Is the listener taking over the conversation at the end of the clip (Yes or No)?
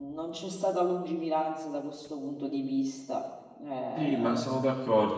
Yes